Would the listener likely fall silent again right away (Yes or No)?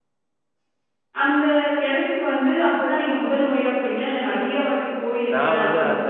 No